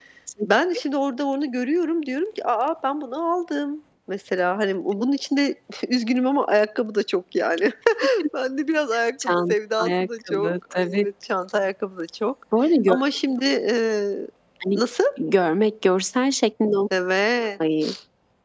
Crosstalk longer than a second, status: present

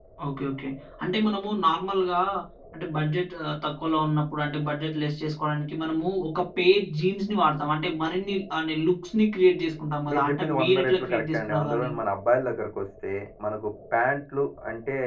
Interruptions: present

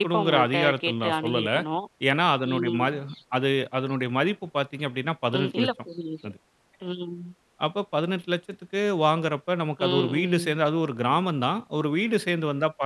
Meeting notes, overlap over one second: present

